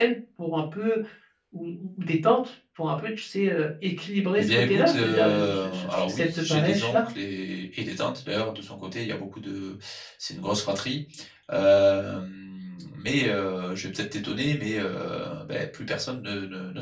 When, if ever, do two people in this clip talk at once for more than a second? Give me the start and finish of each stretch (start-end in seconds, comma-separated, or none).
4.4-7.1